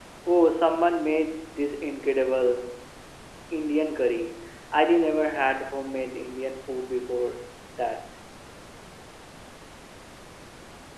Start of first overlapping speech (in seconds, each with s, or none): none